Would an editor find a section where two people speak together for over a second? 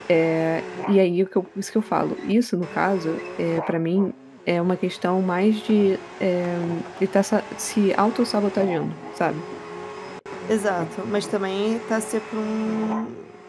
No

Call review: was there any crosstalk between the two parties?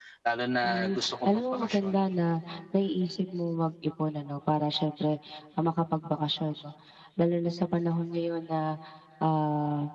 Yes, from 0.6 s

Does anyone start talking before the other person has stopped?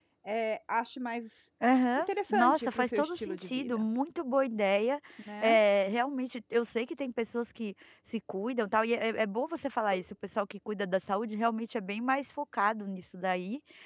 Yes, from 2.0 s

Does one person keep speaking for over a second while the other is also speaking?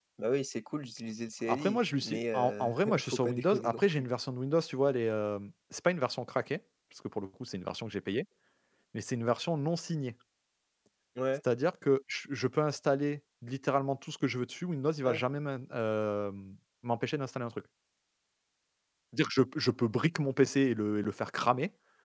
Yes, from 1.5 s

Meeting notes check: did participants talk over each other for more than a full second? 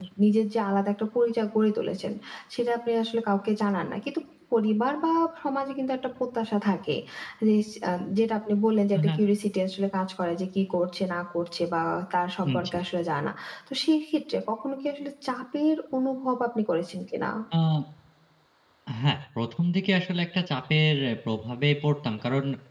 No

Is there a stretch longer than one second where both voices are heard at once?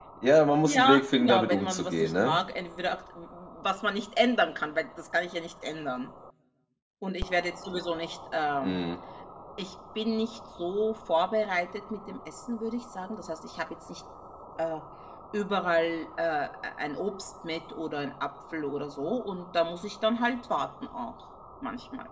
Yes, from 0.6 s

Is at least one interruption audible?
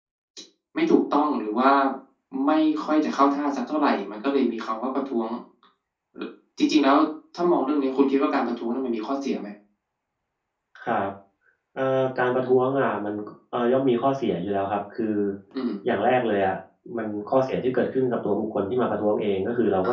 No

